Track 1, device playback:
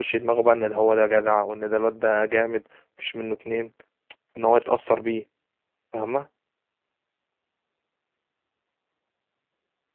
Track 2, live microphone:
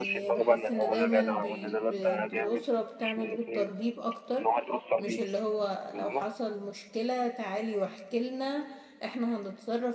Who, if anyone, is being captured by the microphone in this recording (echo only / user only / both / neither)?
both